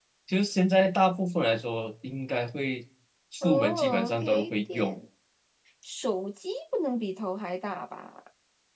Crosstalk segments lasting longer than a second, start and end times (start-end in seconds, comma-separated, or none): 3.4-5.0